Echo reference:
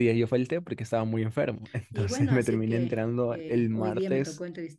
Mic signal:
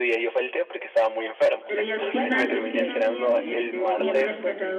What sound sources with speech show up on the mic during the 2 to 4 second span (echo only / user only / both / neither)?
both